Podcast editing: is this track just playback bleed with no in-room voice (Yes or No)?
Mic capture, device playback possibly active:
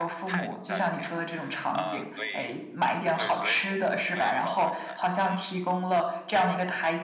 No